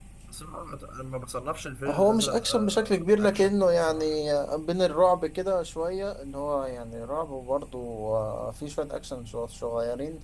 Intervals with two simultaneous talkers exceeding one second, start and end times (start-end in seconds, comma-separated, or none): 1.9-4.2